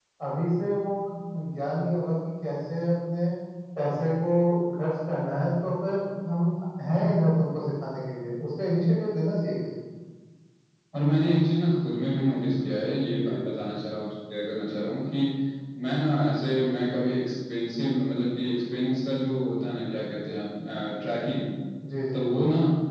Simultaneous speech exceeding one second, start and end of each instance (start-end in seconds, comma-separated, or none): none